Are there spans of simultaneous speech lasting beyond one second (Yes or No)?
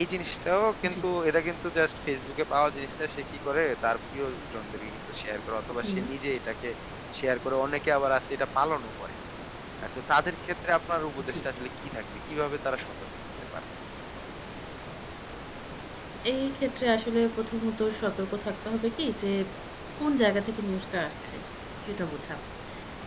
No